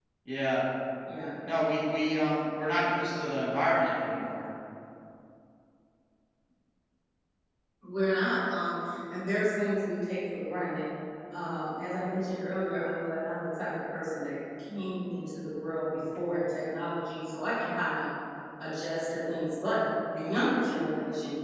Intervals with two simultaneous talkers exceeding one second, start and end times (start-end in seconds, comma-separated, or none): none